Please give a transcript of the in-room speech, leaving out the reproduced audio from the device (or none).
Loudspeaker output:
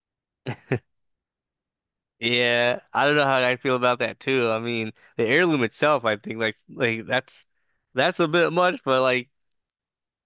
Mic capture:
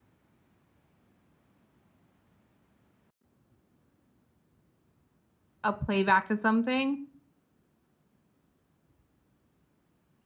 a playback to something,